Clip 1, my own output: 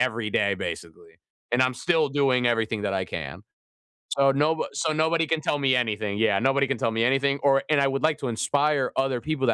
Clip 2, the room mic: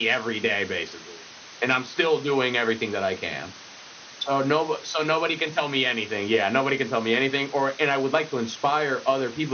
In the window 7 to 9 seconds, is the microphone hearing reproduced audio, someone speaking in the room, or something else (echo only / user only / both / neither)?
echo only